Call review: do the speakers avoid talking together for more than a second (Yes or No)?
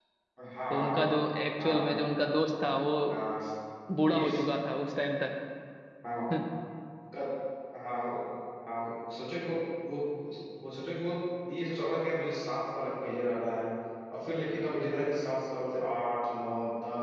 Yes